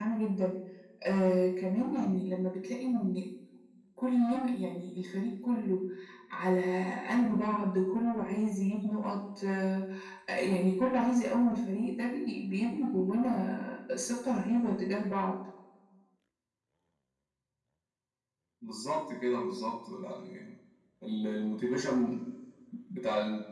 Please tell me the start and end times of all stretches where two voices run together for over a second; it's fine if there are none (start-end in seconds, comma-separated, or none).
none